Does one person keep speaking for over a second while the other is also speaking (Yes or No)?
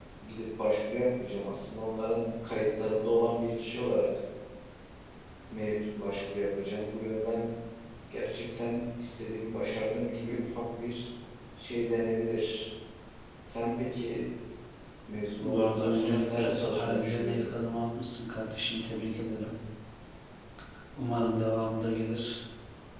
Yes